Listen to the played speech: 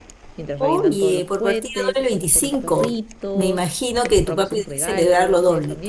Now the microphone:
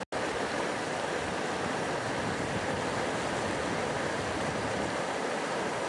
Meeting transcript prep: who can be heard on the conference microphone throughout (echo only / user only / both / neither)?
neither